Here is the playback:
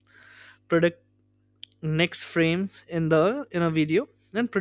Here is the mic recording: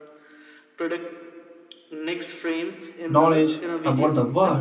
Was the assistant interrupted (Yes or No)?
Yes